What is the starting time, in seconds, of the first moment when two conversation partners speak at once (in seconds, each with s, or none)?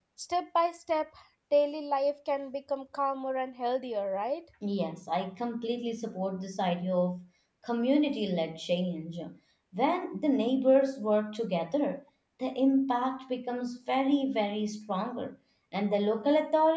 none